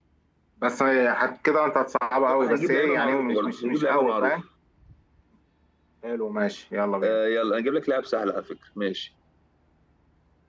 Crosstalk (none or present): present